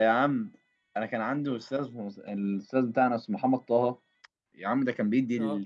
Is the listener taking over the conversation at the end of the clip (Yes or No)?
No